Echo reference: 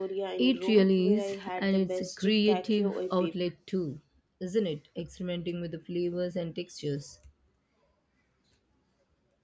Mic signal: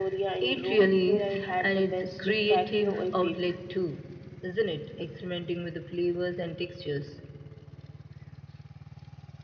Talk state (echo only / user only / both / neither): echo only